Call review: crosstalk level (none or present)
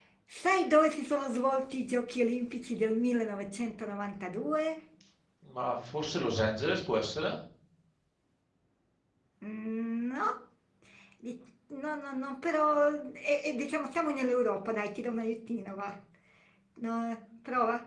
none